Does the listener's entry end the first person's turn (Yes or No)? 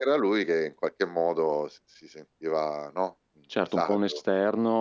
Yes